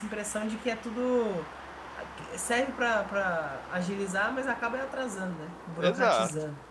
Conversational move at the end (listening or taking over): taking over